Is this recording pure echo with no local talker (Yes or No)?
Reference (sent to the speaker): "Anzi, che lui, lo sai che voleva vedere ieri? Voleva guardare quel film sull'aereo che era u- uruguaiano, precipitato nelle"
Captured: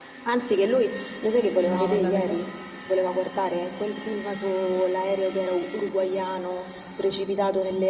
No